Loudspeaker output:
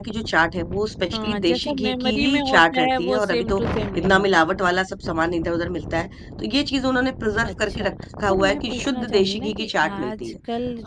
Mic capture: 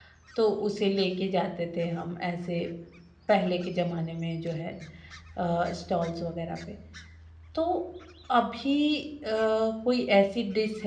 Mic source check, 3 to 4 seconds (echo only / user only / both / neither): user only